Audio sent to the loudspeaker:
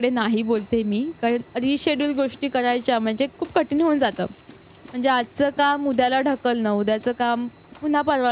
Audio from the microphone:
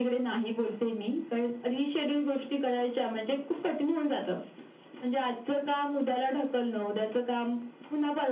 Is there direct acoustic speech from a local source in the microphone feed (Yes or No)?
No